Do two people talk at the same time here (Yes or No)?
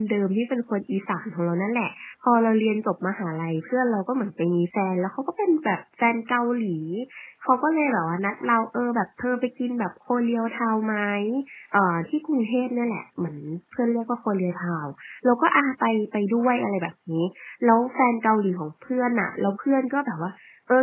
No